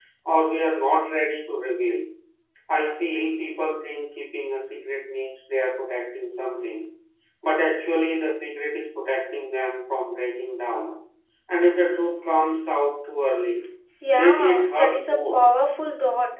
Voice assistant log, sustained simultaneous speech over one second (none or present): present